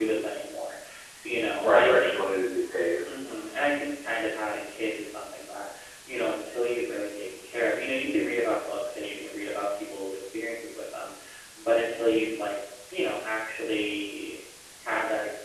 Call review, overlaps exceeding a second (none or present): none